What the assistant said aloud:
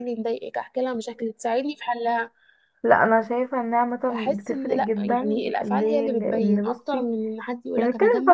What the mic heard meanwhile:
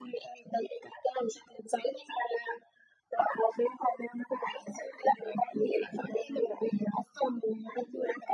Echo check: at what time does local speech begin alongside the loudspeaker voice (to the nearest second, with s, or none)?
none